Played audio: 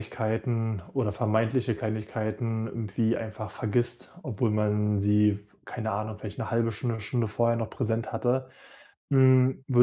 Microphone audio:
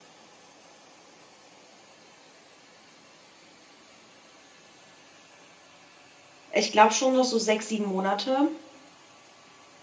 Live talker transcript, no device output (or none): Ich glaube schon noch so 6 7 Monate.